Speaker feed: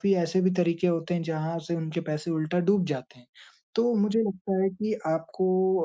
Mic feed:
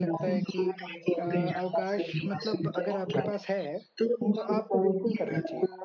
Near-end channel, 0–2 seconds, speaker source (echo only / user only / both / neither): both